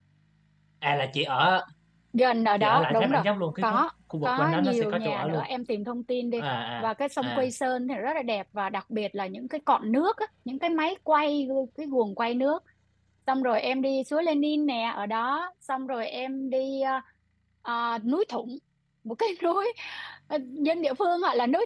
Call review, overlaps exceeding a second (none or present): present